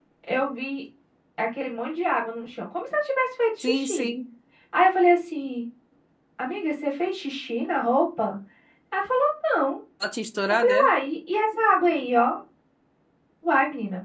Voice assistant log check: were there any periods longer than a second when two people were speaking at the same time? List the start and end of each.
none

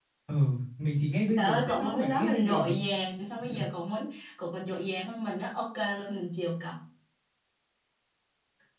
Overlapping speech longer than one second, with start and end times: 1.4-2.8

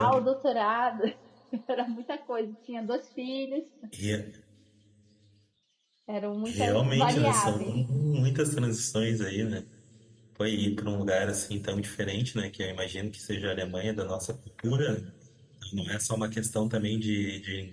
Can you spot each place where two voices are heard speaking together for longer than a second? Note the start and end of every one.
6.5-7.7

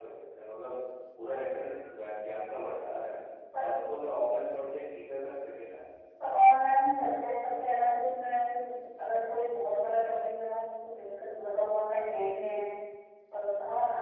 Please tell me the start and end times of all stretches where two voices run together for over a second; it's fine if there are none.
none

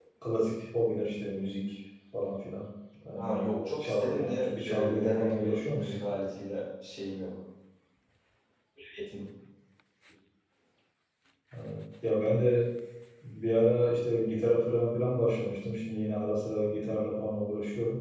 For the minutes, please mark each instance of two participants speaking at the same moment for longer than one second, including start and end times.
3.2-5.9

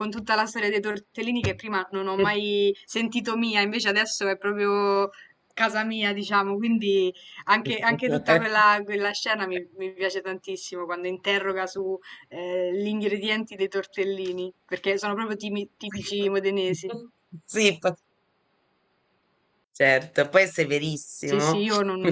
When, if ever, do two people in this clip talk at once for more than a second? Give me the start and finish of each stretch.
none

